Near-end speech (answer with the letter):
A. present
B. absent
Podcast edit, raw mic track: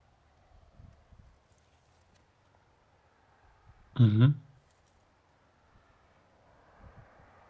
A